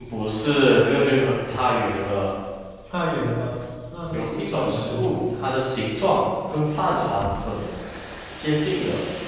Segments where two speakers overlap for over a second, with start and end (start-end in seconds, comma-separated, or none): 4.1-5.3